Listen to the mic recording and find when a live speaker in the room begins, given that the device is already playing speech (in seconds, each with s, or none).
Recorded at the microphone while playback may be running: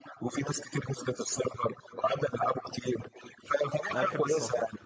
3.9 s